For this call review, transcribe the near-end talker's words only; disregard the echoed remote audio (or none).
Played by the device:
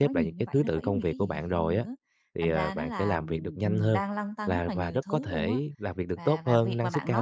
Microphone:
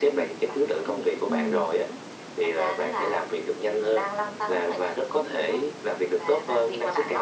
Ừm,